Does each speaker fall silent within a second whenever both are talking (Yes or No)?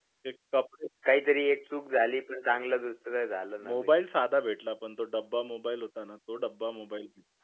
Yes